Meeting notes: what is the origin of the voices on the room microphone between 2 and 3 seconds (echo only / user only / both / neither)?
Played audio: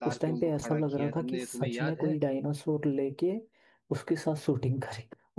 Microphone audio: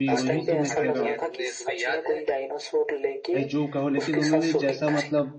echo only